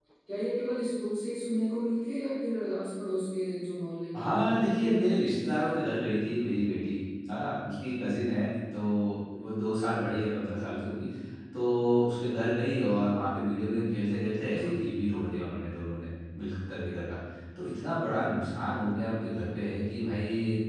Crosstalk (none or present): present